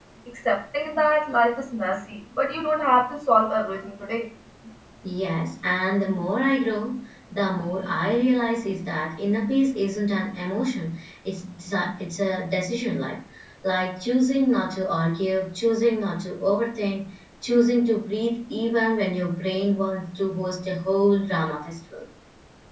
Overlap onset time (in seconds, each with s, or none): none